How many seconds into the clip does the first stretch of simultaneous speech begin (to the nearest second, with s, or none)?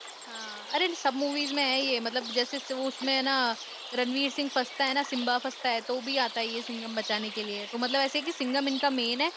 none